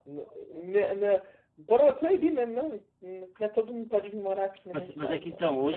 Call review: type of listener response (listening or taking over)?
taking over